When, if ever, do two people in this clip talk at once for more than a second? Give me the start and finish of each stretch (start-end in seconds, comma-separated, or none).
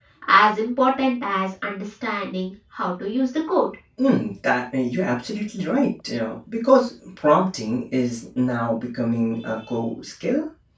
none